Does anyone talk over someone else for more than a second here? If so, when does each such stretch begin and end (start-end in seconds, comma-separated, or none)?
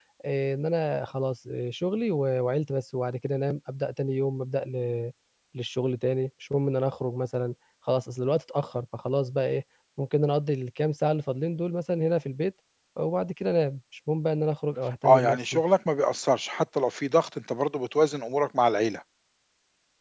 none